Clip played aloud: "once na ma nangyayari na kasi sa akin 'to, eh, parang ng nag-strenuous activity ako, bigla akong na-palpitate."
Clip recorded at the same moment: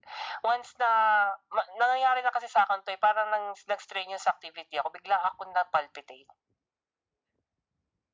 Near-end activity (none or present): none